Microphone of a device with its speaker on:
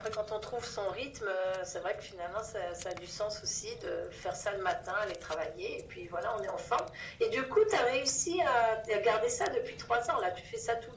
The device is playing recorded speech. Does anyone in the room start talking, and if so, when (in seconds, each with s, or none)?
none